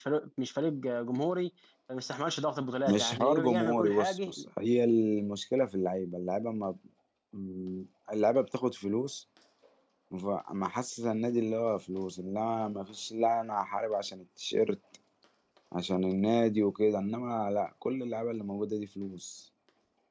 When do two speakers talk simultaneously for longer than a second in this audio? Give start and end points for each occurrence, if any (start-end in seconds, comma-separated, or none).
2.9-4.3